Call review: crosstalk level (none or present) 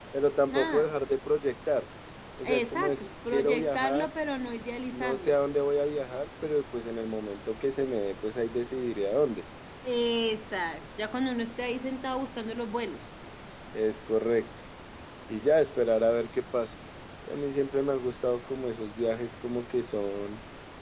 present